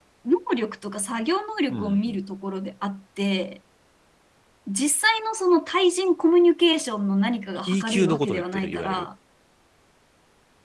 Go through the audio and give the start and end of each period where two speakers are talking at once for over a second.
7.6-9.1

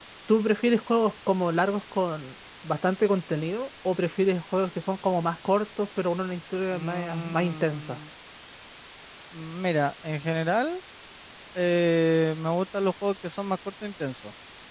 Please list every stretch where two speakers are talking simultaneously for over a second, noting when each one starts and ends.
6.7-8.0

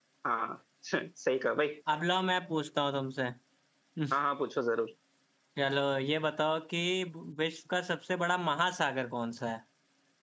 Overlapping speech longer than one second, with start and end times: none

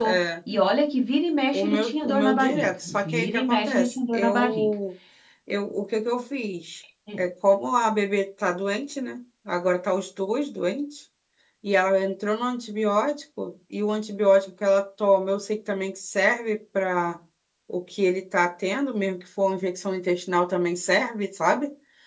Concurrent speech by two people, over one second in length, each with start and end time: 1.5-4.7

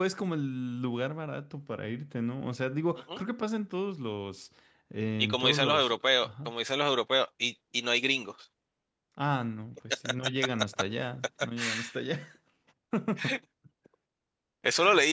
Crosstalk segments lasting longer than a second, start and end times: 5.2-6.5

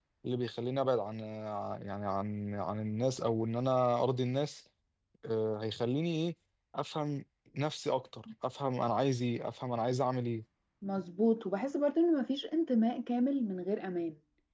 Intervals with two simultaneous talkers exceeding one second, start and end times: none

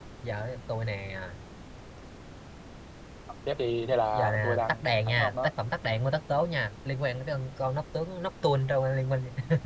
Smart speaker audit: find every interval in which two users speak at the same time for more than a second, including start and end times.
4.1-5.5

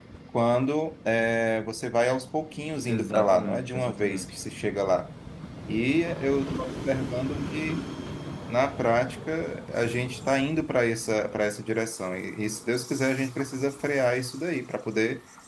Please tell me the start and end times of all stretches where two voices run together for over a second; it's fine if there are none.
2.8-4.3

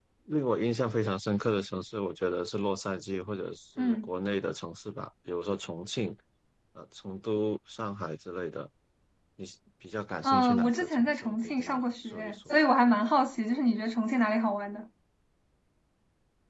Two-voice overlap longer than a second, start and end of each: 10.2-12.5

